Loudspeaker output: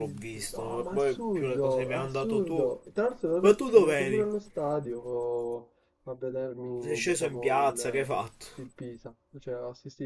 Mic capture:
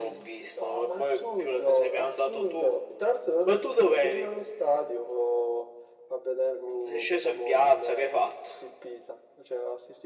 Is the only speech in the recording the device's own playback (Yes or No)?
Yes